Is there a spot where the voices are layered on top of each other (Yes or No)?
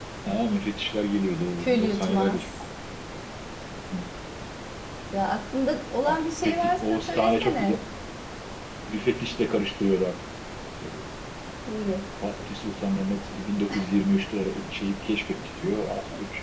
Yes